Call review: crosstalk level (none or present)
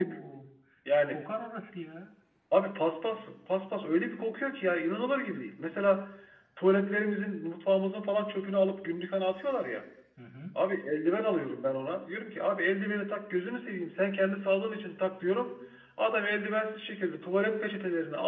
none